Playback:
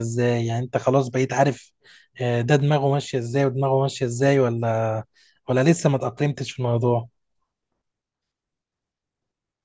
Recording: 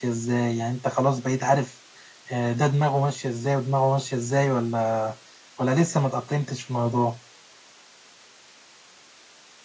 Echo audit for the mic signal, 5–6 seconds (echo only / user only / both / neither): echo only